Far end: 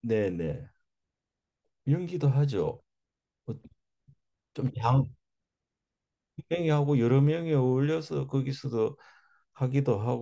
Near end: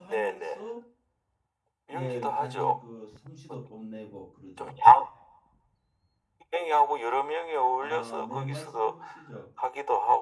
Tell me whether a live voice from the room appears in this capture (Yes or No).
Yes